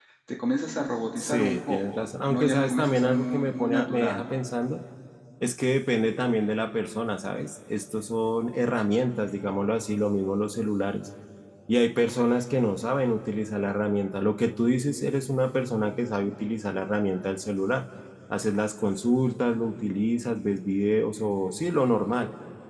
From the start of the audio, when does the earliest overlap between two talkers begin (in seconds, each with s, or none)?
1.2 s